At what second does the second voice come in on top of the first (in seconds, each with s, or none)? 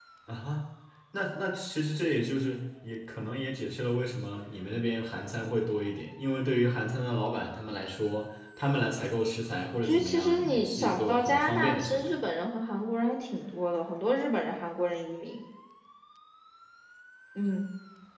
9.8 s